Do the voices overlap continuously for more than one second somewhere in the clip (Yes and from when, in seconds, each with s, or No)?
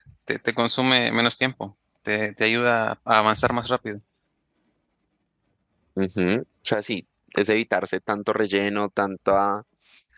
No